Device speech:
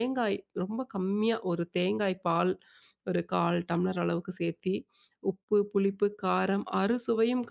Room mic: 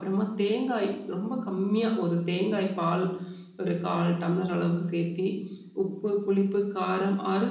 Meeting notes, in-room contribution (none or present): none